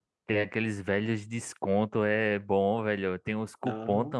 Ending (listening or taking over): listening